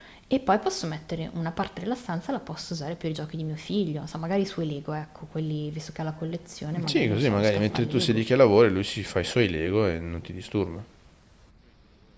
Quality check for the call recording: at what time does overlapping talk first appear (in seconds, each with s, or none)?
6.7 s